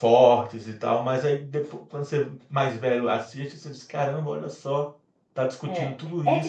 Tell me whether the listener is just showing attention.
No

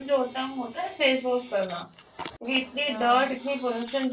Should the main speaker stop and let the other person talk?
No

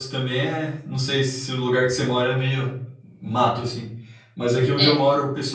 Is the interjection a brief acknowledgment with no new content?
Yes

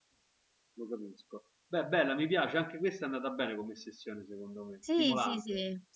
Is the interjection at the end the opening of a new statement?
Yes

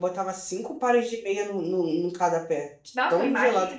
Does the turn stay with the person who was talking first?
No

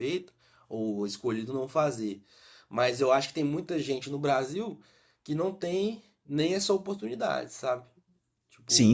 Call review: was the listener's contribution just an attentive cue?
No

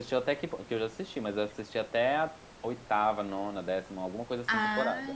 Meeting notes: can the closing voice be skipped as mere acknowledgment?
No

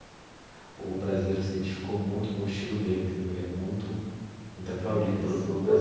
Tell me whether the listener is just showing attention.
No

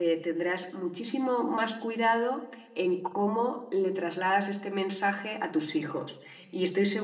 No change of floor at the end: Yes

